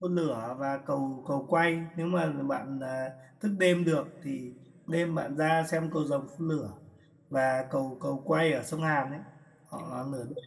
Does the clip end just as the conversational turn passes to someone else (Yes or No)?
No